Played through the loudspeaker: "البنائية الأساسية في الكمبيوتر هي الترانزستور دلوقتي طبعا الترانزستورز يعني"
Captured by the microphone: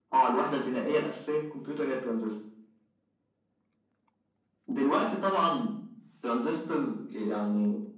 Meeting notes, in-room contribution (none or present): none